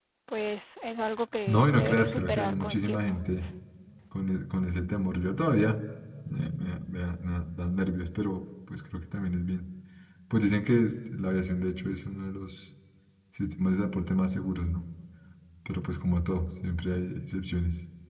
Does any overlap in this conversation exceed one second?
Yes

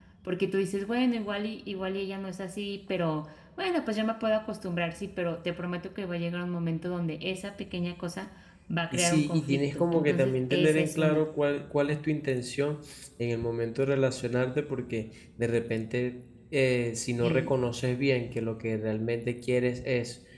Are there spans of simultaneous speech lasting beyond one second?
Yes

